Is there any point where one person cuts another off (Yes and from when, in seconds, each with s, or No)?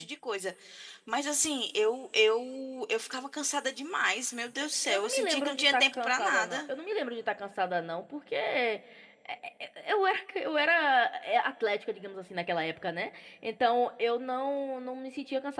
Yes, from 4.8 s